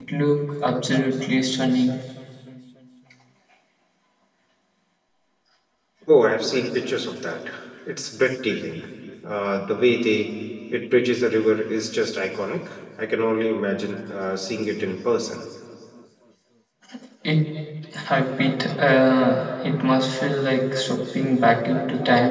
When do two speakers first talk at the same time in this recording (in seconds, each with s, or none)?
none